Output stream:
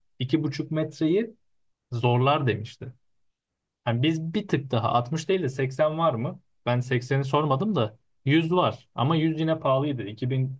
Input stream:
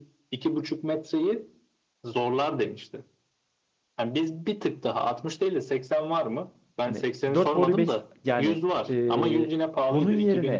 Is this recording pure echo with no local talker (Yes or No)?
No